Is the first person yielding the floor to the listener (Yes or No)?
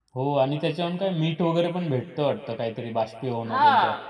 Yes